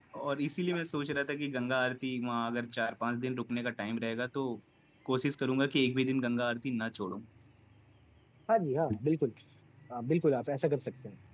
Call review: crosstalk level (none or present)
none